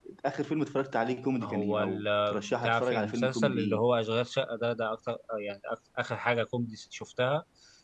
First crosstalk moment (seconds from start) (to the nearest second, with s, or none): 1 s